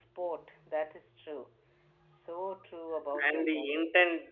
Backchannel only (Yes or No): No